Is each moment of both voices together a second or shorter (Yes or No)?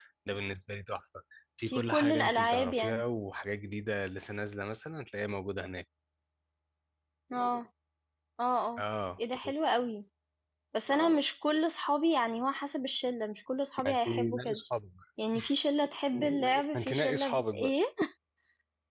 No